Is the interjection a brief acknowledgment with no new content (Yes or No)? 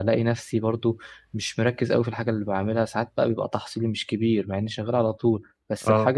Yes